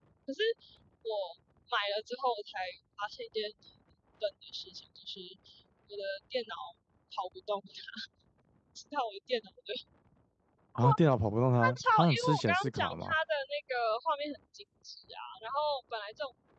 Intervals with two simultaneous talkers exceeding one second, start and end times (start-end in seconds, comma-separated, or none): 11.6-13.2